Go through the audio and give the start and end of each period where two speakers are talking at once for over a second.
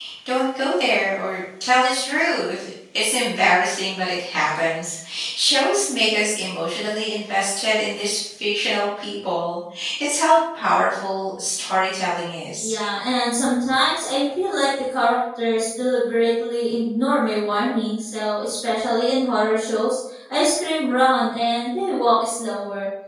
none

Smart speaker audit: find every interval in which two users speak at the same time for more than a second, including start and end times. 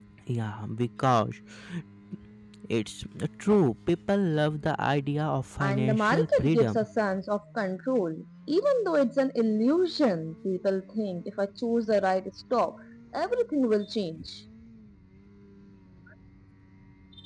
5.6-6.9

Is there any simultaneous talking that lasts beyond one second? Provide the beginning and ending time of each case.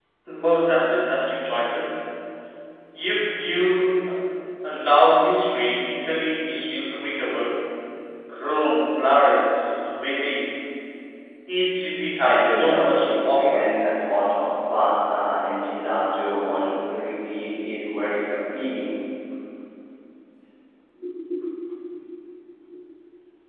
12.2-13.6

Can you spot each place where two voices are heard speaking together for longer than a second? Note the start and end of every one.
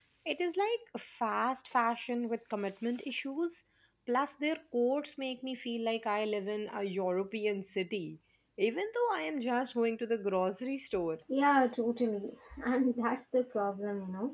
none

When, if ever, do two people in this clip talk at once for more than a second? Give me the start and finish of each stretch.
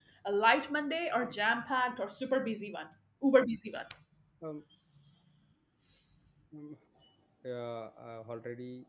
none

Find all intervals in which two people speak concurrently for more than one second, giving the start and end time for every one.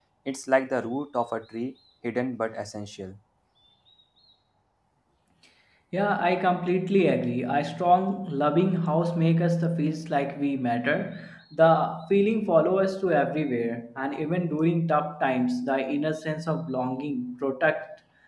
none

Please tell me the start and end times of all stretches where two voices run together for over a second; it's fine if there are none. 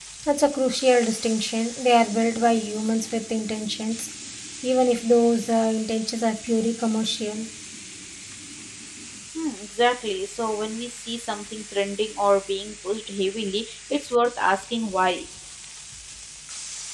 none

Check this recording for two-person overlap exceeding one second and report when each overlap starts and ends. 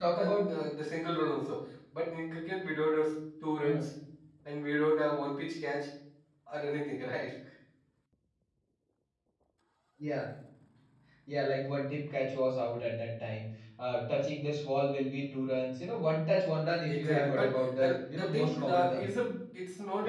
16.9-19.1

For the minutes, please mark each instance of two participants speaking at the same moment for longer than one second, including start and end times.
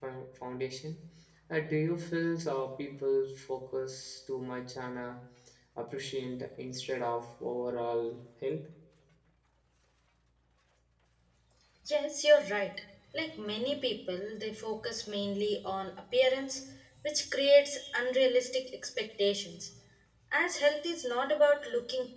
none

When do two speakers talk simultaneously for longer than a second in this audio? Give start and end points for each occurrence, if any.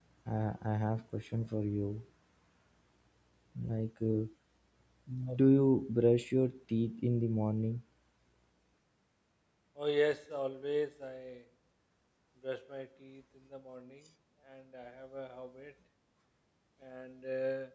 none

